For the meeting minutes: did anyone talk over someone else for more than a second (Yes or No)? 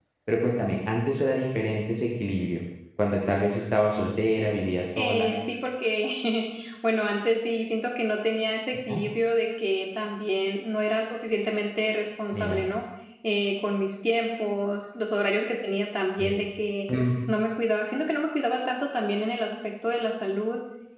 No